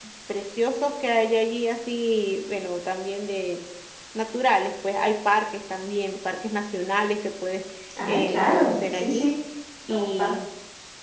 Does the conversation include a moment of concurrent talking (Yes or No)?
Yes